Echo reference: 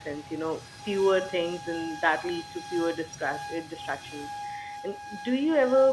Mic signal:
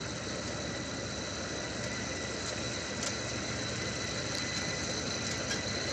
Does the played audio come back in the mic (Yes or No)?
No